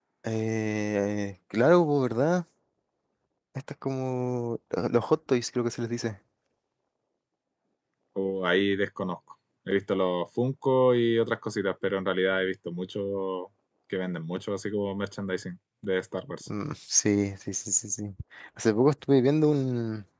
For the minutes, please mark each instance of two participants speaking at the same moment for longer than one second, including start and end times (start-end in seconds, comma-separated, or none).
none